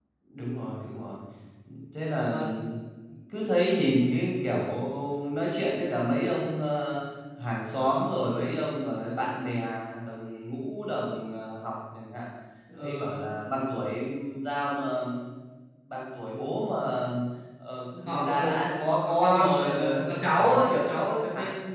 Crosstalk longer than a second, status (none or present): present